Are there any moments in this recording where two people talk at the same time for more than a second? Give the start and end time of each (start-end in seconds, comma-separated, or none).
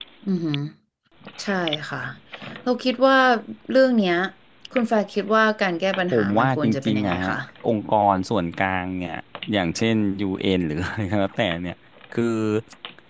6.1-7.4